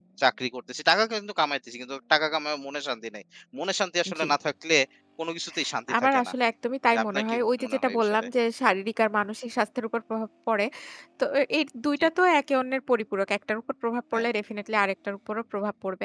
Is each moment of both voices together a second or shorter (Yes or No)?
No